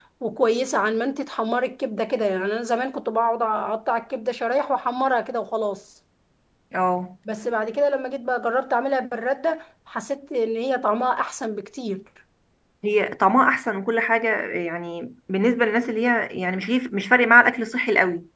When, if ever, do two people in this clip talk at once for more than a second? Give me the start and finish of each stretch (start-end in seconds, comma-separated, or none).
none